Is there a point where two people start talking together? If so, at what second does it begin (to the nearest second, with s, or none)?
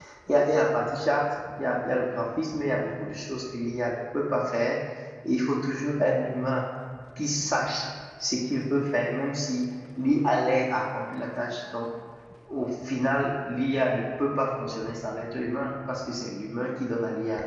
none